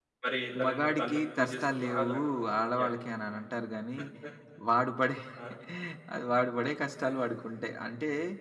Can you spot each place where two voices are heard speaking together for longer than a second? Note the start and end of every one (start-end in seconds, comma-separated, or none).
0.6-2.1